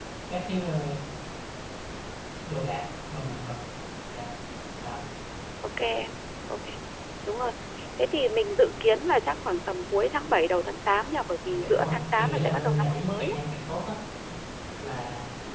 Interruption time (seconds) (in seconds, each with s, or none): 11.5 s